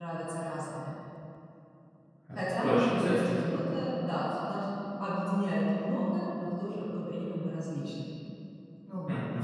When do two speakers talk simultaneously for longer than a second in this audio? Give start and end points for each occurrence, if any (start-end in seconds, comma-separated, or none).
2.4-3.6